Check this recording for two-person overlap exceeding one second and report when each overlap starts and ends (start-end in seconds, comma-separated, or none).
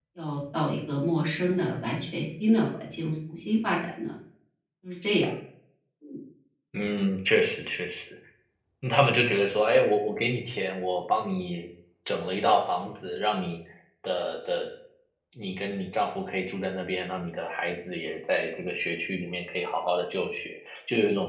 none